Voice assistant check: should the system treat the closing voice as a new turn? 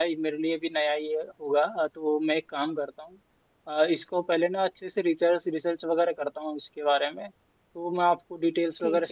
No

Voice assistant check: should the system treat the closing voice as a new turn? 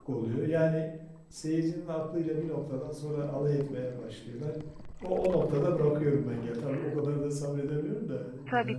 Yes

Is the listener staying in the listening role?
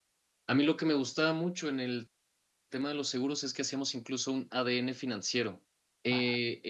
Yes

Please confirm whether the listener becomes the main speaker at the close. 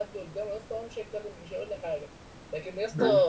No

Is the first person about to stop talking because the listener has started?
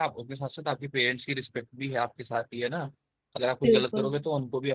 No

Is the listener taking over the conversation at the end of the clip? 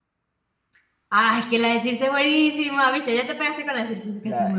Yes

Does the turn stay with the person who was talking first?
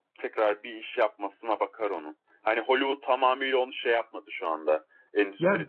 Yes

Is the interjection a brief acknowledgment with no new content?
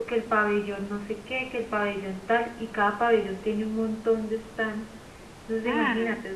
Yes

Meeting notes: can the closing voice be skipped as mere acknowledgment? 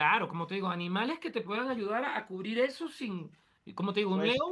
Yes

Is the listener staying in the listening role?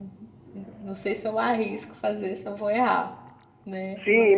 No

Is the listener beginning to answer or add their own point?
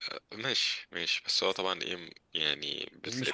No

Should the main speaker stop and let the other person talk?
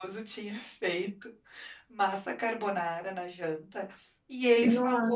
No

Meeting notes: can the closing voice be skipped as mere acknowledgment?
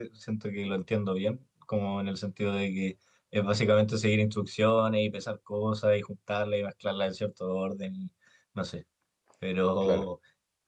Yes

